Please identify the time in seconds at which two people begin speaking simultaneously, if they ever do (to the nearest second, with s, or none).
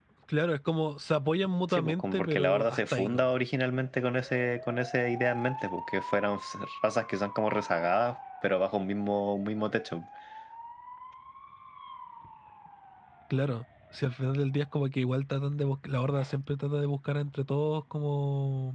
2 s